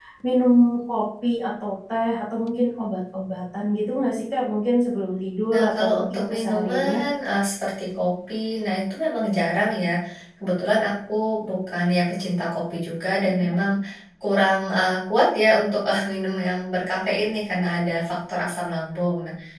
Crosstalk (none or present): present